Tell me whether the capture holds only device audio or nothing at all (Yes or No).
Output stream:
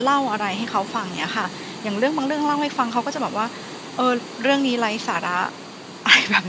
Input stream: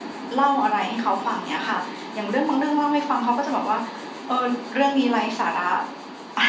Yes